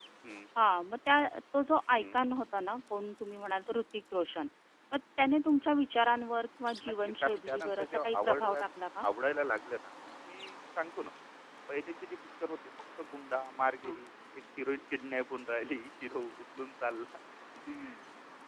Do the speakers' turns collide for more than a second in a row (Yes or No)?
Yes